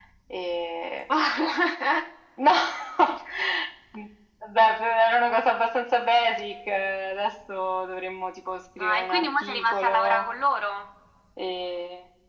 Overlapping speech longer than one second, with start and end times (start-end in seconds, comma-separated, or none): 8.8-10.3